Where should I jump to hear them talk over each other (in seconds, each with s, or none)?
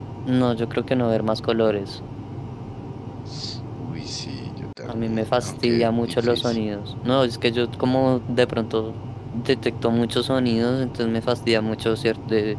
4.8 s